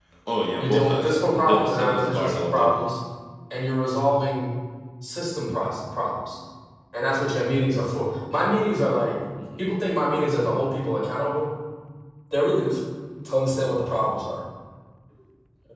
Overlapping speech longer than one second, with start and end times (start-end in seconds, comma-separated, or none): 0.6-2.9